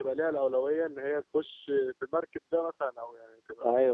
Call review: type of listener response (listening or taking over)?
taking over